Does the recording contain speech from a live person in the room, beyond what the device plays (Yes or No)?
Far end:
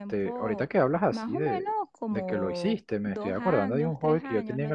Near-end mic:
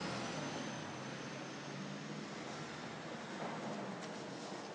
No